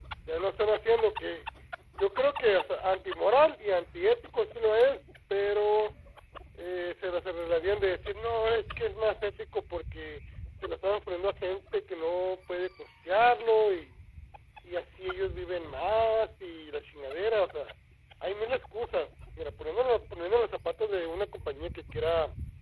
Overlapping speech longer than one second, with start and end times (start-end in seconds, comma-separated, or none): none